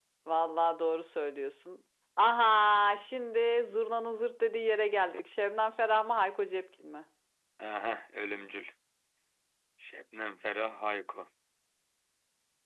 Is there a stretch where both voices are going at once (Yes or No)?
No